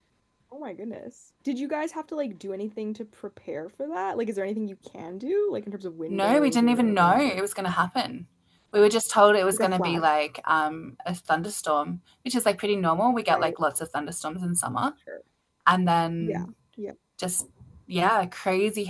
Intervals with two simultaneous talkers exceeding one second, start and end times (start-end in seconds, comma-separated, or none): 6.1-7.4